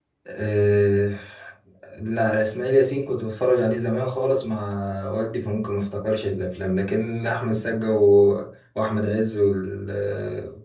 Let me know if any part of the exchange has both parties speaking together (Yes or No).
No